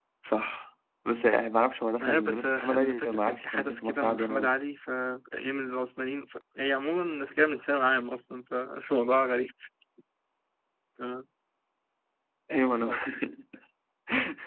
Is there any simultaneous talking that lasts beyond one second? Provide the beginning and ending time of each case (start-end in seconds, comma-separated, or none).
2.0-4.5